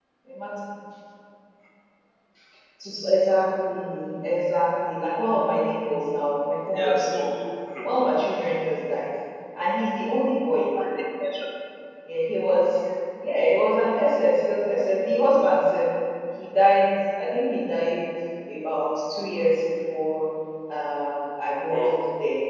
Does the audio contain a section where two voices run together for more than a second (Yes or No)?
No